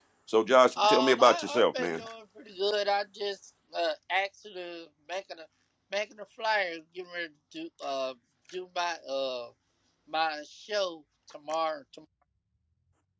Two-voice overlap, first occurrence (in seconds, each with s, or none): 0.8 s